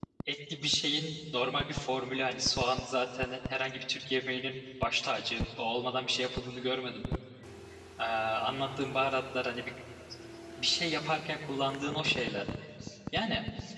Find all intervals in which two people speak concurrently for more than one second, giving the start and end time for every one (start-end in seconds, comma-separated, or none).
none